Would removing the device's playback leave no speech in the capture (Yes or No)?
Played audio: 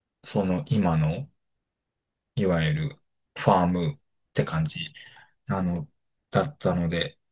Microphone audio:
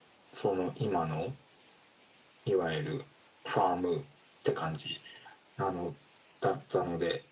Yes